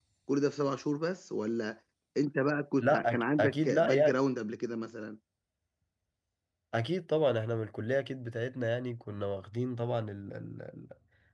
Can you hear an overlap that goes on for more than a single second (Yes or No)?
Yes